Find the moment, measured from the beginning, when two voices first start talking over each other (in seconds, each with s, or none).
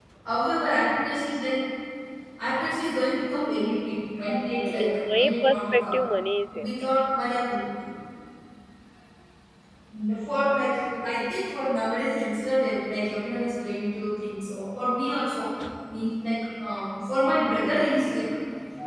4.6 s